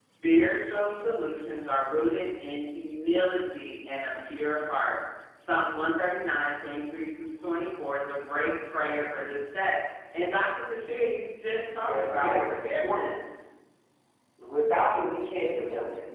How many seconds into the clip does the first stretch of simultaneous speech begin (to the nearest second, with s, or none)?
12 s